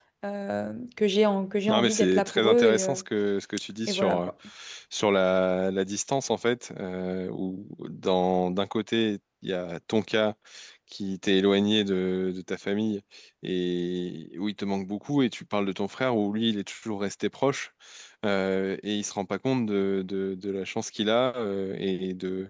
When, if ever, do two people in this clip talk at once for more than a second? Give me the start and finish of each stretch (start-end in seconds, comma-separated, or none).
1.7-3.0